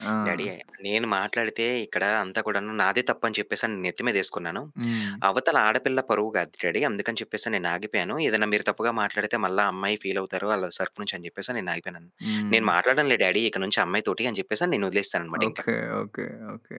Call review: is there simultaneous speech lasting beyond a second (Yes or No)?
No